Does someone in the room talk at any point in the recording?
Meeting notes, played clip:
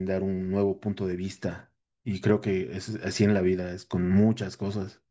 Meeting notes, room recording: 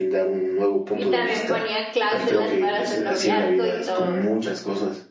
Yes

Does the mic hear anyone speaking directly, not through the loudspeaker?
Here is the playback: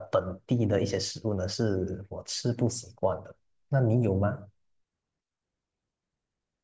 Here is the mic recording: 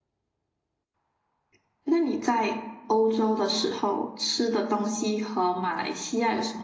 Yes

